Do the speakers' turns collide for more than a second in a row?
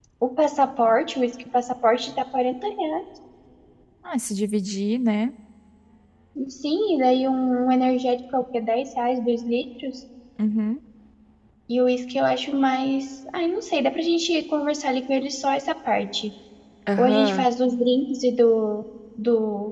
No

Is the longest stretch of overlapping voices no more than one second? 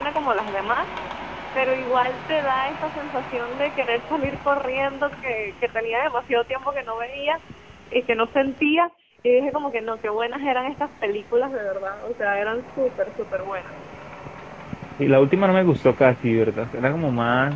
Yes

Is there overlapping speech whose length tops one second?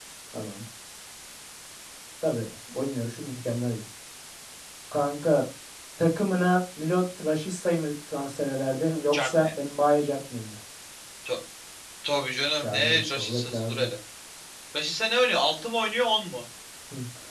Yes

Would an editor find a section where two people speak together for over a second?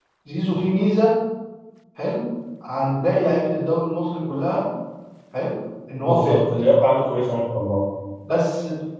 No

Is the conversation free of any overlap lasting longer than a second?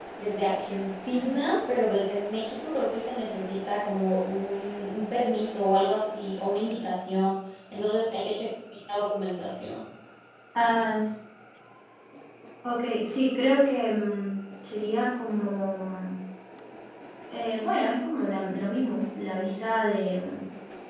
Yes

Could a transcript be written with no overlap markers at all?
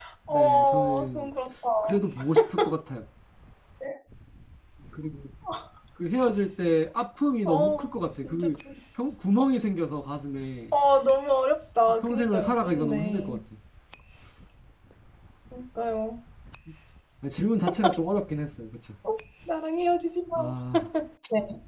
No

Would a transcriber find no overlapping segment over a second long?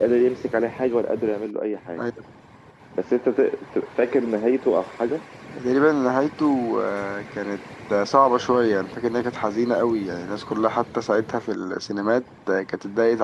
Yes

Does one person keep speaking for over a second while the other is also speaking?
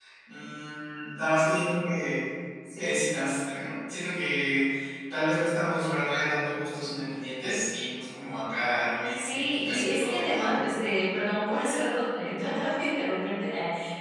Yes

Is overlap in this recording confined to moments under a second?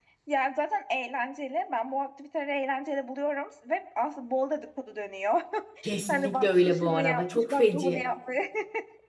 No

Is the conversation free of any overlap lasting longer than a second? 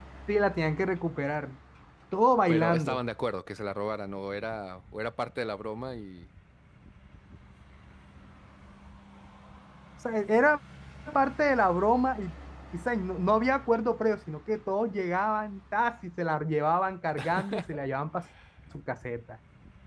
Yes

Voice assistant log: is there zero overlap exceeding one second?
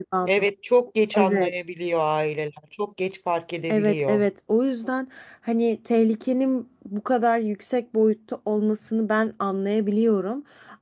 Yes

